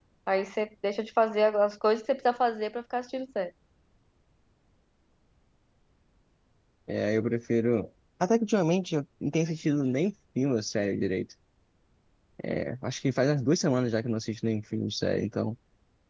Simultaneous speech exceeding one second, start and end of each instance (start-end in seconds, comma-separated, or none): none